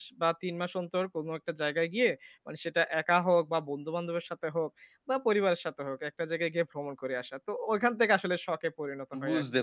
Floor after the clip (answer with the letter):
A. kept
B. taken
B